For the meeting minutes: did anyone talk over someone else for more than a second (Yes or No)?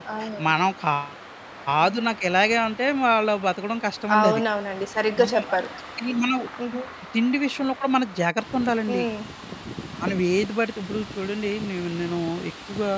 No